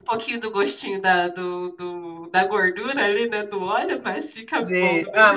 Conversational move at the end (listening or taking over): taking over